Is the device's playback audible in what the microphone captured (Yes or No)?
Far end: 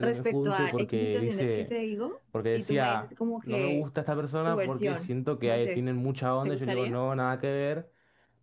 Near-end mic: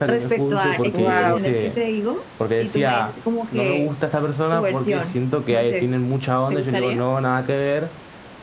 Yes